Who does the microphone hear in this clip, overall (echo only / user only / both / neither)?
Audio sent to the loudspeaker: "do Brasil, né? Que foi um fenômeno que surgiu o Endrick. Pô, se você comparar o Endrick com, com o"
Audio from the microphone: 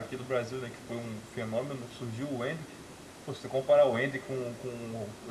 echo only